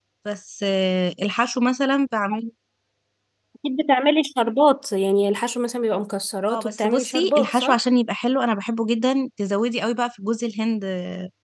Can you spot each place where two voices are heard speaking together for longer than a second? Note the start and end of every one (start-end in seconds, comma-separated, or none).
6.5-7.8